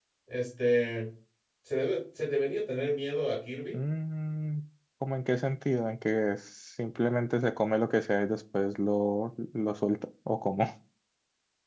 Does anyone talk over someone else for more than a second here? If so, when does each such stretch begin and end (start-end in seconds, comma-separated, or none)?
none